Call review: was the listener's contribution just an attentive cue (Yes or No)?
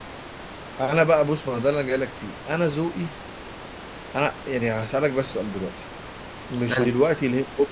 Yes